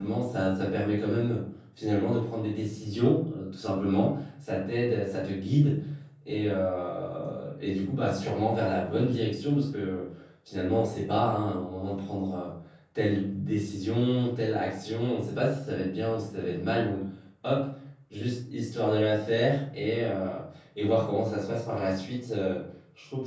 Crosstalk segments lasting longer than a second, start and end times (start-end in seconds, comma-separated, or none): none